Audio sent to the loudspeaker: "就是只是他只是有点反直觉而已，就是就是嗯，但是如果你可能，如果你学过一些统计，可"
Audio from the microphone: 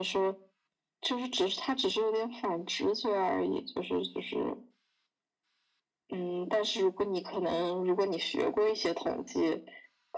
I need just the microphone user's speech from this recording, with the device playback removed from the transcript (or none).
none